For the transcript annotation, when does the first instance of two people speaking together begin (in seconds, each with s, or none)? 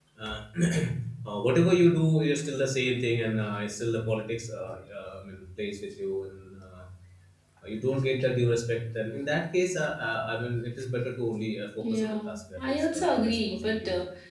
11.8 s